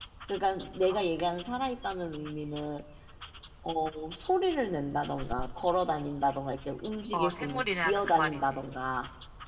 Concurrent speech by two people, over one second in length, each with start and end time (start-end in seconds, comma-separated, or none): 7.1-8.6